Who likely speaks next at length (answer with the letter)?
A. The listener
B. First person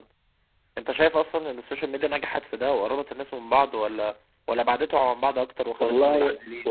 A